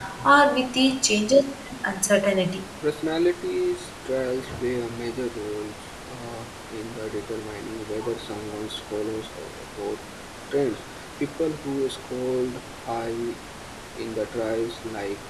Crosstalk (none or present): none